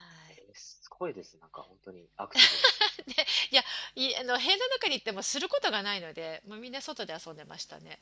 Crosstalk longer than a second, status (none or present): none